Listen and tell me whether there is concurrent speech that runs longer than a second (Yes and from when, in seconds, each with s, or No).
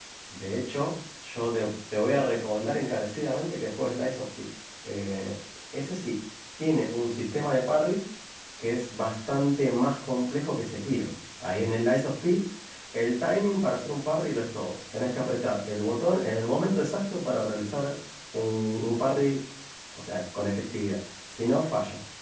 No